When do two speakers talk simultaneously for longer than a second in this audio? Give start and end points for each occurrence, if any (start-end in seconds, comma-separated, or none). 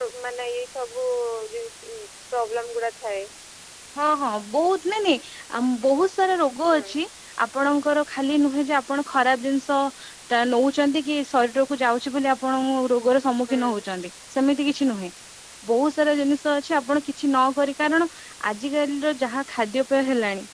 none